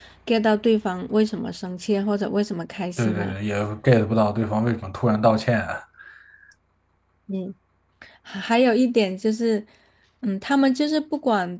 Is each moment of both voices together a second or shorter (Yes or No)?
Yes